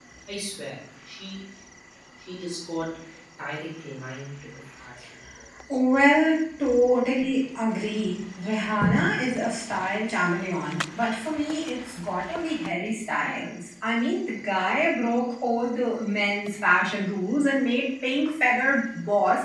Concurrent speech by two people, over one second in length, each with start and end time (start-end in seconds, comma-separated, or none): none